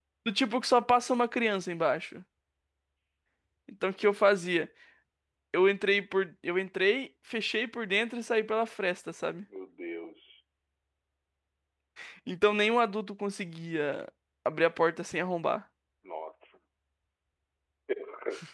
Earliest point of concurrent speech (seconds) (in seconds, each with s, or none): none